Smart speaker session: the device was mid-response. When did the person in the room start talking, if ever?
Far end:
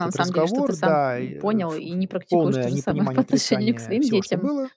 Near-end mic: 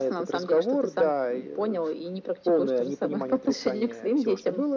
none

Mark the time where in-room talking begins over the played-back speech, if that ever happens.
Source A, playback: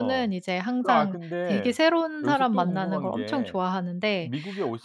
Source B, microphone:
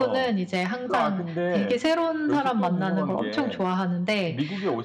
none

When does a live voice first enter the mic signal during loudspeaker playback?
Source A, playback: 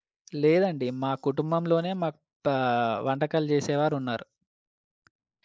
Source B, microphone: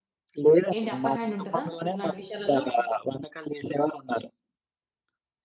0.8 s

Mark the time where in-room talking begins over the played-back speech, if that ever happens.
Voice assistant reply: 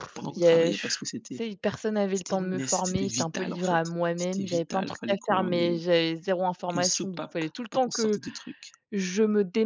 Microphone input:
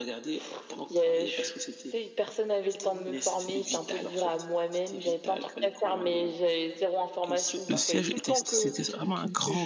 7.7 s

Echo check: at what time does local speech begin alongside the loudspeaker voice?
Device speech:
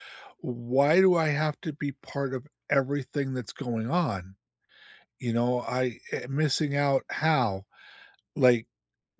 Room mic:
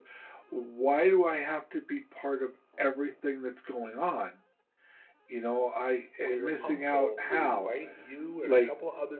6.2 s

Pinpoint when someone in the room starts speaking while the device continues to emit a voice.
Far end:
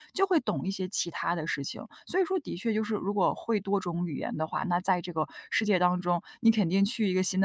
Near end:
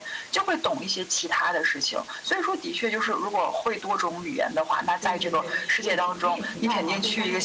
5.0 s

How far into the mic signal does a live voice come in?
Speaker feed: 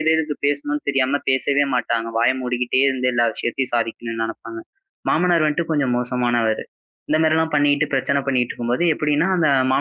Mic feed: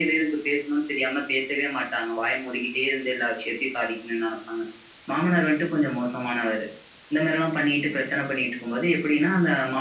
none

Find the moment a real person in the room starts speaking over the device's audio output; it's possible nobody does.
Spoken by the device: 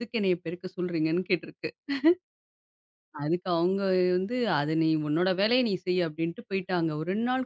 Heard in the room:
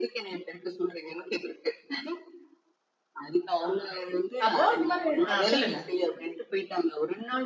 3.6 s

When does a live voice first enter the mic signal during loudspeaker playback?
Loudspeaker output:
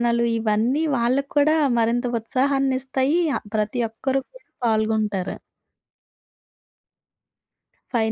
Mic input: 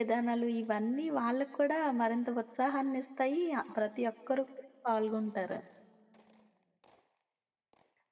none

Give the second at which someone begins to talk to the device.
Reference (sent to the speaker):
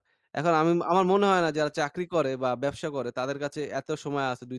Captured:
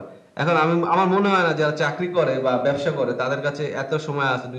none

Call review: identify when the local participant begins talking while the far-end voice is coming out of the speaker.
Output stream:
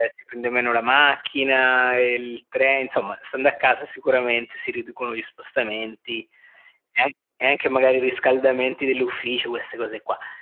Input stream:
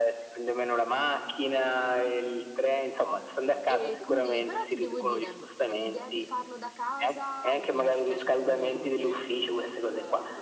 3.6 s

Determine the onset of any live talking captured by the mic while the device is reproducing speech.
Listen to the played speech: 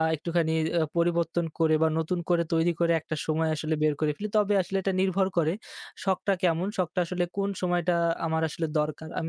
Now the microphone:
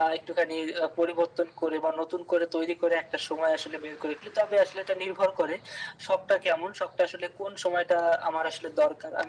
none

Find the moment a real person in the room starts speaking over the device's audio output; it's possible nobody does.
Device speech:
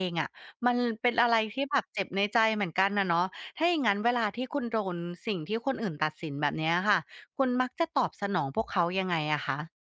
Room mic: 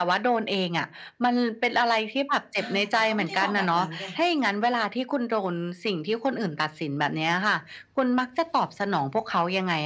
2.6 s

